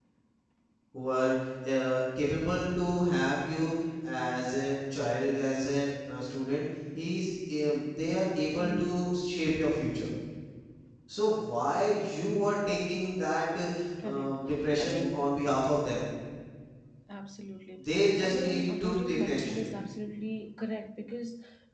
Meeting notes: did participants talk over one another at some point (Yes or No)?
Yes